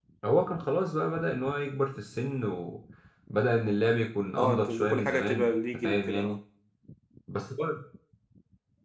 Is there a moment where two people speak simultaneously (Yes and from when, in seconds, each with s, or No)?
Yes, from 4.4 s